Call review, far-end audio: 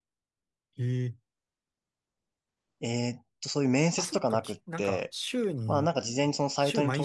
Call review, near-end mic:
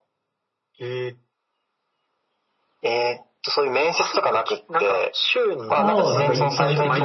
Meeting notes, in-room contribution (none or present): present